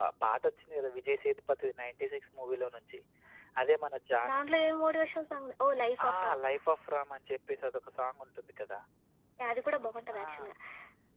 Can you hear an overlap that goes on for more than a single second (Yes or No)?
No